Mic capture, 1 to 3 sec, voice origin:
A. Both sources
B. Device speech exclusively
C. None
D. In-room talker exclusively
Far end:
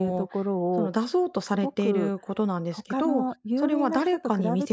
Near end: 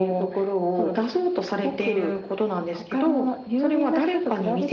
B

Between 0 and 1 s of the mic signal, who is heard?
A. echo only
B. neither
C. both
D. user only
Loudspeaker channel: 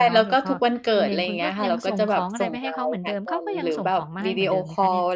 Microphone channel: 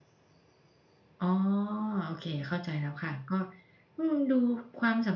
B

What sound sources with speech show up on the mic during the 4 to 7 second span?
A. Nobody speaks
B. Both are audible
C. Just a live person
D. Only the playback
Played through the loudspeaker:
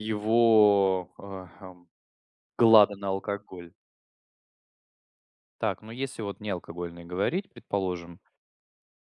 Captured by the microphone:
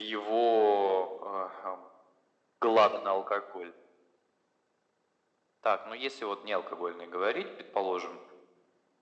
D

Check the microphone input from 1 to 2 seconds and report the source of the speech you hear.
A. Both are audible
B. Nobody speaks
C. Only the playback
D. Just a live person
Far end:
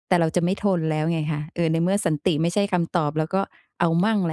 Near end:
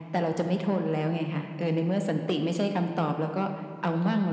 C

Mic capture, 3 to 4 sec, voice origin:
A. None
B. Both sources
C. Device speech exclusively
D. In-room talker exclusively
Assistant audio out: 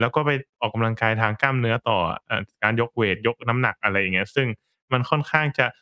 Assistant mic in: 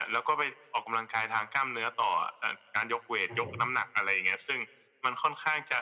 B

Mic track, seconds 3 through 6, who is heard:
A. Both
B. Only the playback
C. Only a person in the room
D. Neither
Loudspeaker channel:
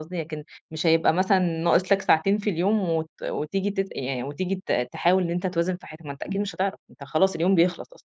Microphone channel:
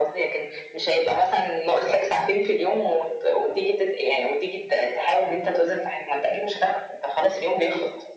B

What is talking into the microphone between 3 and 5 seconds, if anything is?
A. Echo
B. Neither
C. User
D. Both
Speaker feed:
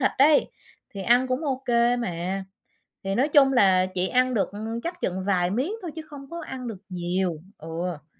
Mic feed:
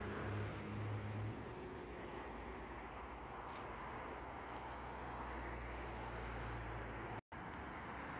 B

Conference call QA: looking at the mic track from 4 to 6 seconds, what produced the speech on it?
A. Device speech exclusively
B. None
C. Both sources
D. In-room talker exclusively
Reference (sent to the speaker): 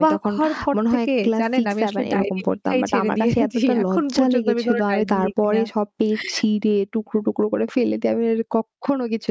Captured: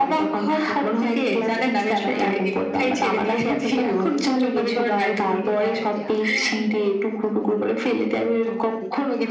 C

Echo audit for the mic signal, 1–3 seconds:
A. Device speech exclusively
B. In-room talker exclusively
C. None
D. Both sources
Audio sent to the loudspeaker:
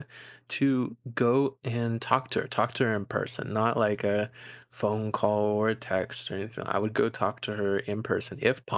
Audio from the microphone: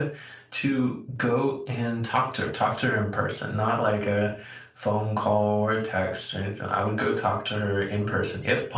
A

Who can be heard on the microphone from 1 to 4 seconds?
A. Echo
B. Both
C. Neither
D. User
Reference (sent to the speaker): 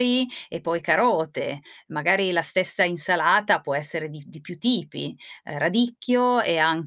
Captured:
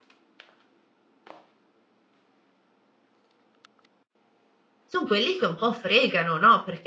C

